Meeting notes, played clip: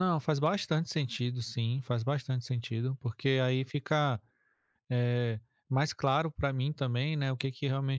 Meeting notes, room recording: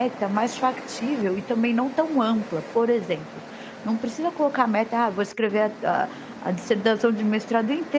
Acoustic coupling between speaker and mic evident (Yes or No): No